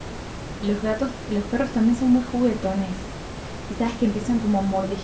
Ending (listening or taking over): listening